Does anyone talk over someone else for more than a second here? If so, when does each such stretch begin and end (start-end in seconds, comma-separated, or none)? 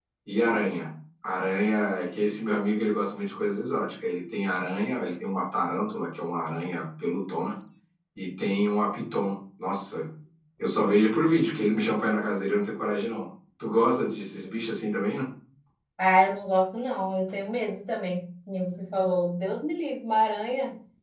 none